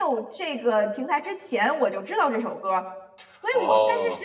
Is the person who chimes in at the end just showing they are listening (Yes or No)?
Yes